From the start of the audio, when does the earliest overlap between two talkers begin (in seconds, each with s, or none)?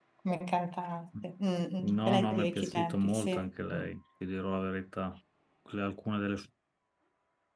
1.8 s